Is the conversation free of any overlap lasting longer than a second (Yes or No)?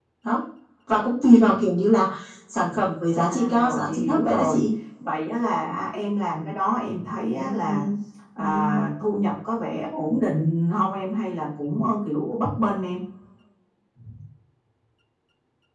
No